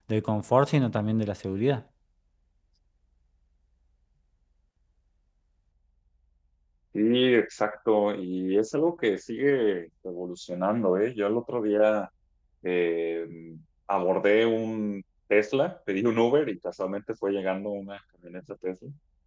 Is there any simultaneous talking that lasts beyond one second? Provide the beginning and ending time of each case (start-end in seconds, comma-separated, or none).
none